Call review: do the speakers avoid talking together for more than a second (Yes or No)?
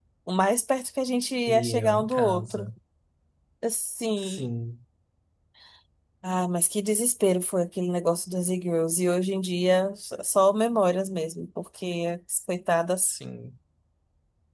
No